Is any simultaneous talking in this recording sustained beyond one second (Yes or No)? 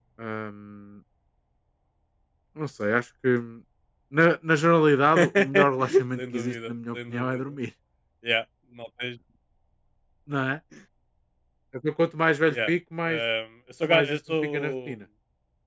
Yes